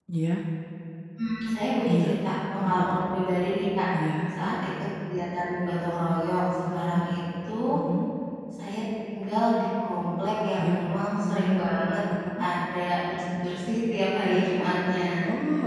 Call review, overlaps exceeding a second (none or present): none